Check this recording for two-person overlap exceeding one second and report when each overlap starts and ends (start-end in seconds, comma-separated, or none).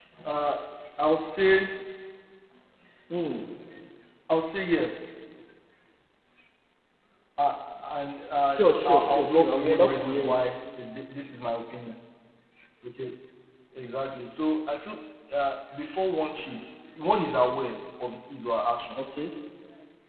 8.5-10.4